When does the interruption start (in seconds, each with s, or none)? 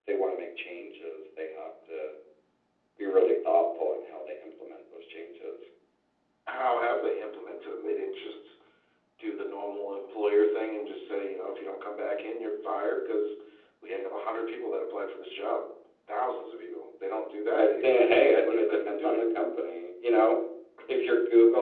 17.6 s